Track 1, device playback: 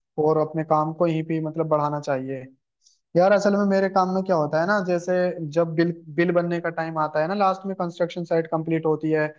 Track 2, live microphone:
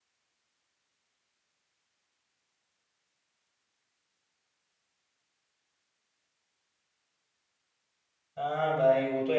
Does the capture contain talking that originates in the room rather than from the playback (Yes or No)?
Yes